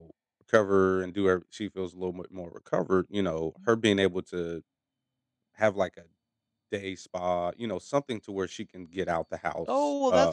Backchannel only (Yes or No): No